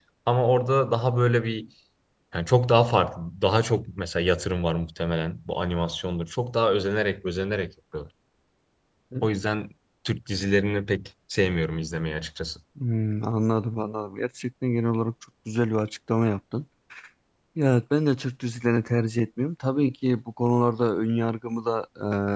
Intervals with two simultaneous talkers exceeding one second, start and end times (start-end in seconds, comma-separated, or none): none